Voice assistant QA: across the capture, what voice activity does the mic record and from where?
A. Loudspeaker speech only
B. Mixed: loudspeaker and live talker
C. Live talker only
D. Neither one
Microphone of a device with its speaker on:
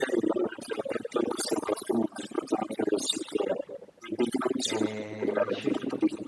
B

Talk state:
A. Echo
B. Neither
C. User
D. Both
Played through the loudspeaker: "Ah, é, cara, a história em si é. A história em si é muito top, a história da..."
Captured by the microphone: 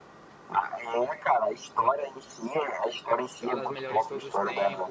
D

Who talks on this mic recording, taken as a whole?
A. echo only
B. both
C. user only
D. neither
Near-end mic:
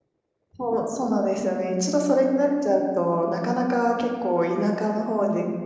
C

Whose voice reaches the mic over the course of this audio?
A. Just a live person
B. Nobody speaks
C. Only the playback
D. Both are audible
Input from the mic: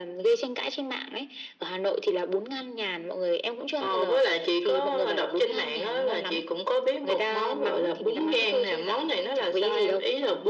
C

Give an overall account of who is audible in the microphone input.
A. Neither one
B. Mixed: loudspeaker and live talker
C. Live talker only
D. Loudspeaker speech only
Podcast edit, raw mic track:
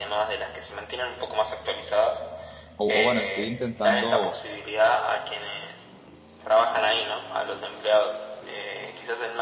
B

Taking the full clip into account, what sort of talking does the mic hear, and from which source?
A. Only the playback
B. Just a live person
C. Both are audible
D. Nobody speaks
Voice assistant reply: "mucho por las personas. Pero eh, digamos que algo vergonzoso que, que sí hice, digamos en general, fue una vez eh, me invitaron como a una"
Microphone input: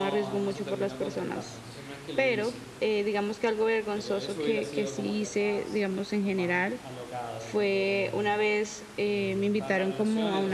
C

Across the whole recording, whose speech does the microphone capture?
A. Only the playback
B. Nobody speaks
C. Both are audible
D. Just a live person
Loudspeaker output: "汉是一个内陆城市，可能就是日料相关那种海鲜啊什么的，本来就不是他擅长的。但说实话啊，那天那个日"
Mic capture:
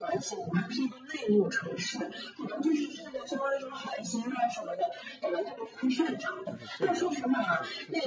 C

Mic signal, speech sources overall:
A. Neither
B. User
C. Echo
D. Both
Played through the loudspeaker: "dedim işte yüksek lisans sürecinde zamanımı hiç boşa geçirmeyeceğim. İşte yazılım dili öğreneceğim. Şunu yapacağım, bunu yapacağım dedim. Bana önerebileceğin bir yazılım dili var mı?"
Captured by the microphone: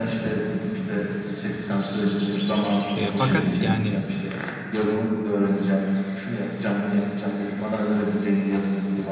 D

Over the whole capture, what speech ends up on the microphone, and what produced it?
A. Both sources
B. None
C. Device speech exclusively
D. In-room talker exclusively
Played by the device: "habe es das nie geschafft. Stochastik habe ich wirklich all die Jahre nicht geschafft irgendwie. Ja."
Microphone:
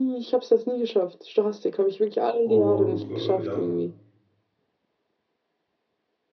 A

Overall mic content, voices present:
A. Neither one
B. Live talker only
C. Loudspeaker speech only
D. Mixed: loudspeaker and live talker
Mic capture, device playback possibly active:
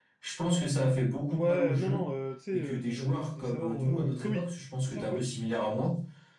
D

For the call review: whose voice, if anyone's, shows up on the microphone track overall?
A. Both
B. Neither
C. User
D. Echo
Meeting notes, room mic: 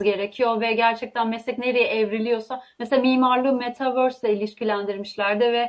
C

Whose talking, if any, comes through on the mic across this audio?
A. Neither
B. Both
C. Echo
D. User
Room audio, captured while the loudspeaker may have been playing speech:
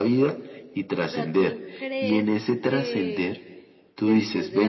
B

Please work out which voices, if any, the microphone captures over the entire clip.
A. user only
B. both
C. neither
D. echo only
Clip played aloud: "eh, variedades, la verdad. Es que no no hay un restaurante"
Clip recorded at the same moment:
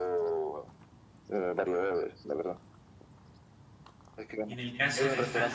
B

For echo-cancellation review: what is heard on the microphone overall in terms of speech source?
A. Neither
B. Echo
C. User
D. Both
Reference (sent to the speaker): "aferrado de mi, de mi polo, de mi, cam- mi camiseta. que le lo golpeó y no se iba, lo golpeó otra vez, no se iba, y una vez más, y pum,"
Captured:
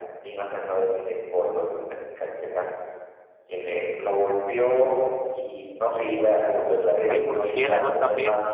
D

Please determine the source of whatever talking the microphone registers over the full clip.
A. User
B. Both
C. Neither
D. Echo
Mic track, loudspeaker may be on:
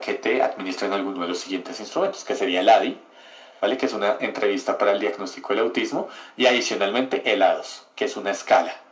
D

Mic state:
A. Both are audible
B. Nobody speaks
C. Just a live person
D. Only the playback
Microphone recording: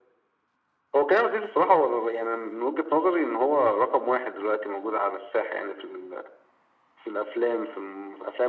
D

